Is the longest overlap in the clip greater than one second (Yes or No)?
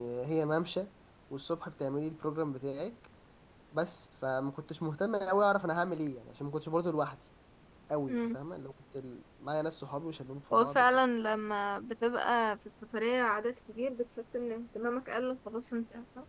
No